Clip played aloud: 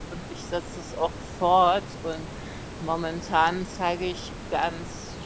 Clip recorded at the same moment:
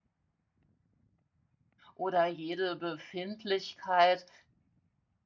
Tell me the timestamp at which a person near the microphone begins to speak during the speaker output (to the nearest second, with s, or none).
2 s